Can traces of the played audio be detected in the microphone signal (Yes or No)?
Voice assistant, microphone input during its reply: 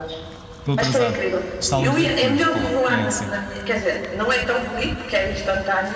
Yes